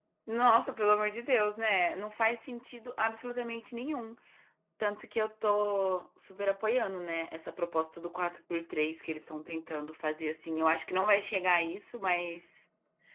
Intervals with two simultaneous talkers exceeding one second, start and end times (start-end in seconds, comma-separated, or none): none